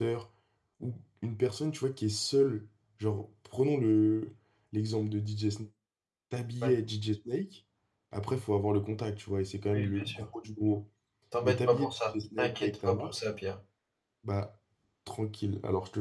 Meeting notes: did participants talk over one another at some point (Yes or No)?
Yes